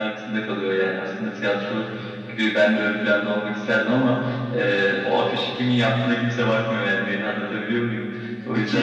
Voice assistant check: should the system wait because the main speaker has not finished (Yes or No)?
No